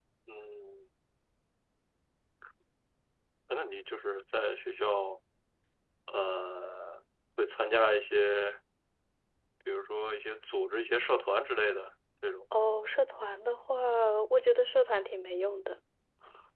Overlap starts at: none

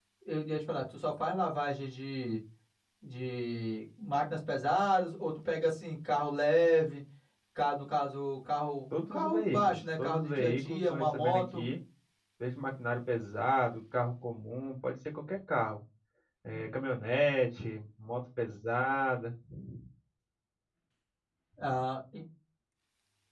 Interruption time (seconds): 9.0 s

